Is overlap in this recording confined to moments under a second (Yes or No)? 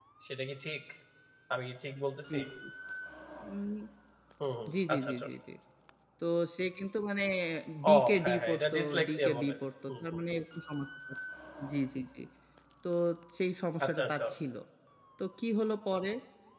No